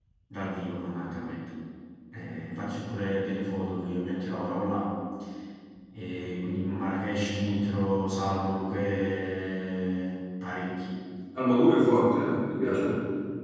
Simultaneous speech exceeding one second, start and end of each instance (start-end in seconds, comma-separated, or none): none